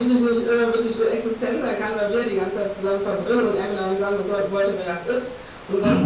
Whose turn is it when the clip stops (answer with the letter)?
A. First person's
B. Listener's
A